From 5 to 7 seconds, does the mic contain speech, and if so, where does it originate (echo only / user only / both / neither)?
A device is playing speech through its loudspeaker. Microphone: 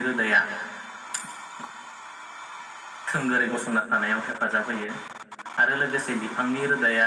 echo only